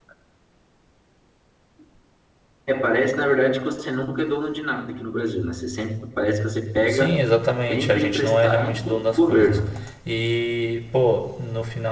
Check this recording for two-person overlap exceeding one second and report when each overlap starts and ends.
7.7-9.6

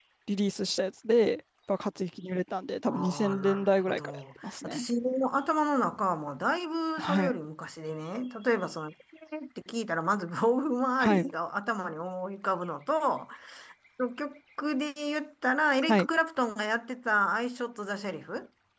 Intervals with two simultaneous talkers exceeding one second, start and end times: 2.9-4.9

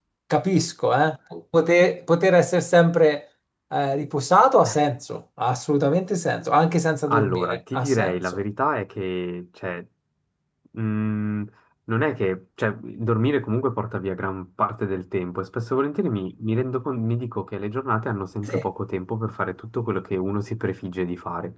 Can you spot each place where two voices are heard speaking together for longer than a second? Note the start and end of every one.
7.1-8.4

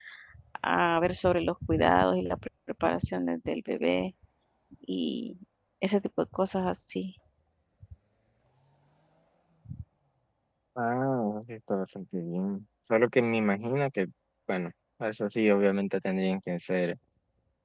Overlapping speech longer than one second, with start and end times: none

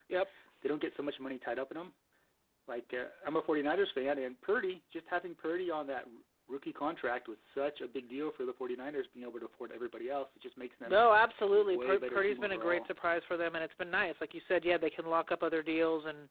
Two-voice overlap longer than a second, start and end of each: 11.5-12.9

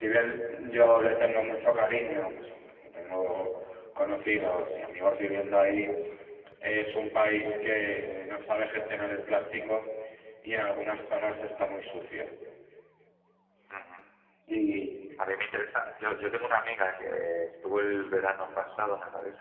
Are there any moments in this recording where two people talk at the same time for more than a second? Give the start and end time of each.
none

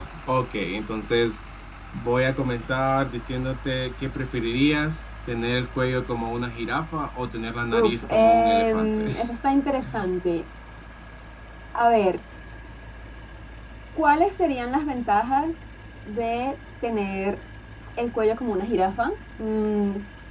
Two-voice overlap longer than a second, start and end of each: 7.8-9.1

